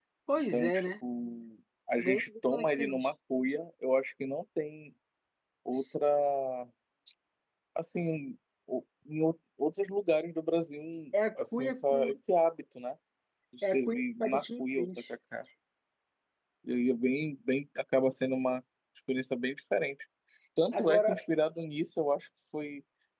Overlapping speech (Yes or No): Yes